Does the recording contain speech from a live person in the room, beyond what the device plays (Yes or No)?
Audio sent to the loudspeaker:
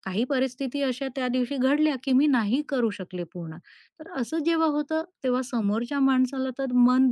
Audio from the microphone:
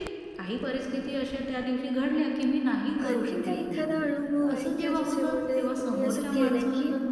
Yes